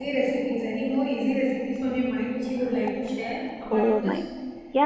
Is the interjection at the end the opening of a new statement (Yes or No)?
Yes